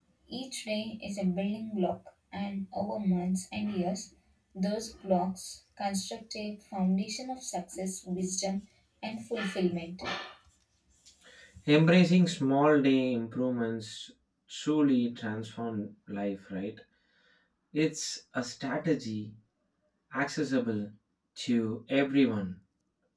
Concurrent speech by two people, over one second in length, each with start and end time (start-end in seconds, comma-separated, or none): none